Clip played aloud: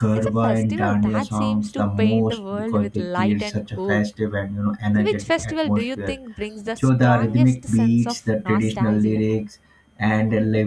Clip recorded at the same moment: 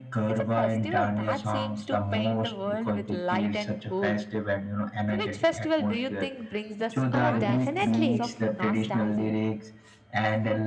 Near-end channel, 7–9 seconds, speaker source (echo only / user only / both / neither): both